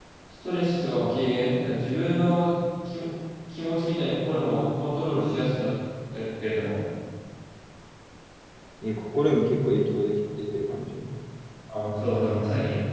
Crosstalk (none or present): none